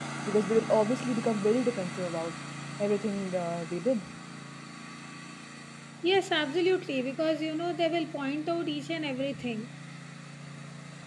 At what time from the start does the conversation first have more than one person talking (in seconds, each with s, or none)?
none